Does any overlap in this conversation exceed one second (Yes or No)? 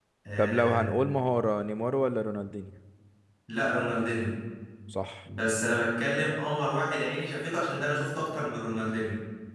No